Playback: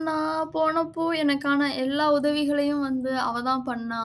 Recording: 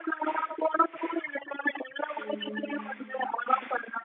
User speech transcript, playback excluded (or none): ம்.